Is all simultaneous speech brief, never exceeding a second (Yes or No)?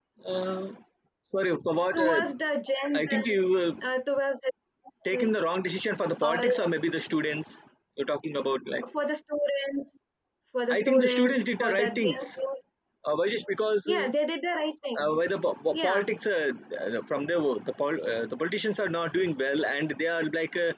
No